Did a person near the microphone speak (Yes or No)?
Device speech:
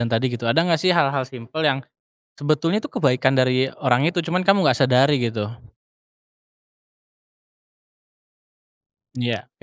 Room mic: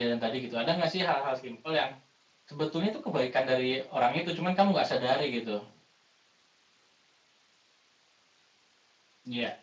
No